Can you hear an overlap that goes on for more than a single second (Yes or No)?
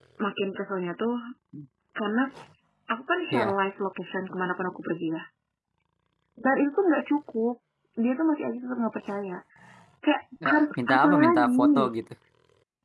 Yes